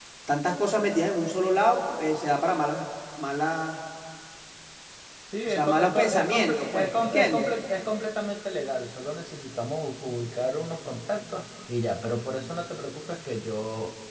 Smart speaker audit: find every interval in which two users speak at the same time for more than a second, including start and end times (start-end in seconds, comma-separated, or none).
5.4-7.5